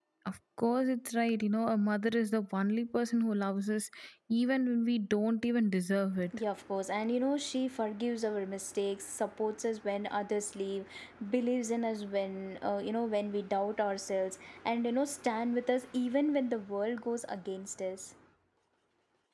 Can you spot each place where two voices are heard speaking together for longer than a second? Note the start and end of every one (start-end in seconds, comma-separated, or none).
none